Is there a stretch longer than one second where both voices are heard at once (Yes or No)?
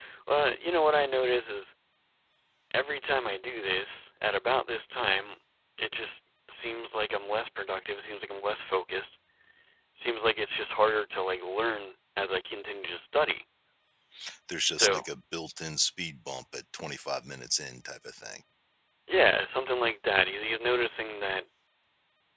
No